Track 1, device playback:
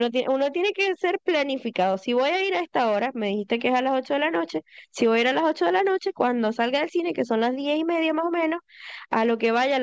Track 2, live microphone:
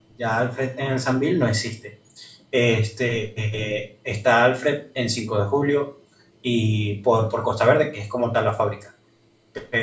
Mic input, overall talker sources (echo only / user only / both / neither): user only